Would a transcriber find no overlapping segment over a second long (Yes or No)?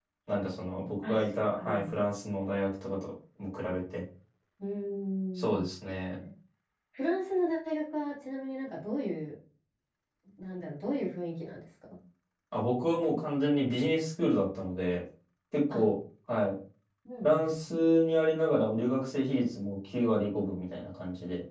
Yes